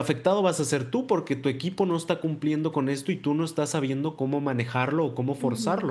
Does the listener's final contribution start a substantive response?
Yes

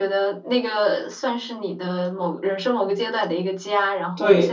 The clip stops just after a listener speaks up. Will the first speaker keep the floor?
No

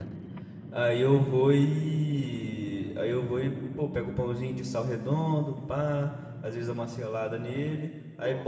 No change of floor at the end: Yes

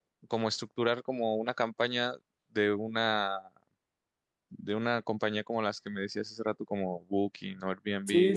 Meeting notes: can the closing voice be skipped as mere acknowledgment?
No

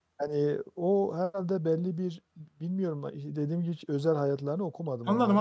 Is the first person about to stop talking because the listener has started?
Yes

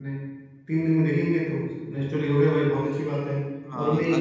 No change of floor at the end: No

